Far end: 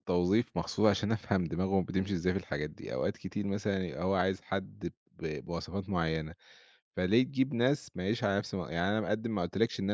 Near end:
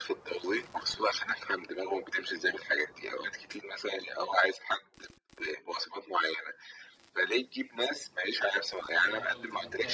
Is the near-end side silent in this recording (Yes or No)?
No